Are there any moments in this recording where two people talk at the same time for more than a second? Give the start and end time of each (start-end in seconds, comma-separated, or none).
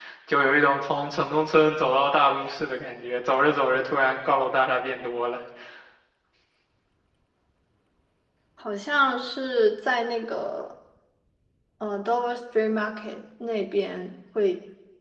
none